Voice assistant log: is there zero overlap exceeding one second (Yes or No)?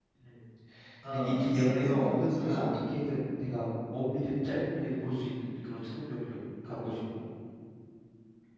No